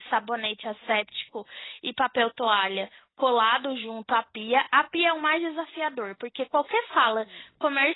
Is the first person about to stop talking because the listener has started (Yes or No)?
No